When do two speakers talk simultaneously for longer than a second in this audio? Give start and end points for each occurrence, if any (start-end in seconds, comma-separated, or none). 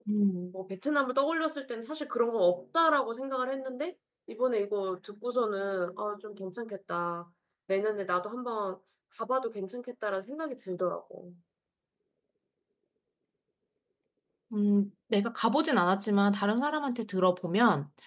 none